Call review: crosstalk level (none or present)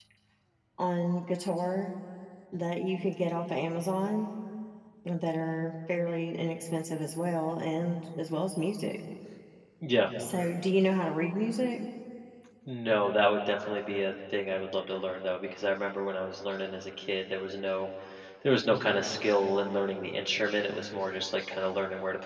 none